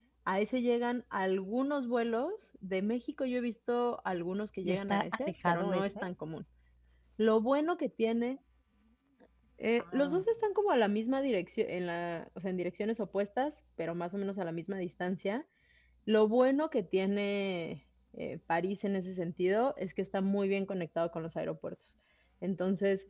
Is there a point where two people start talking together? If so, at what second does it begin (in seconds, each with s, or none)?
4.6 s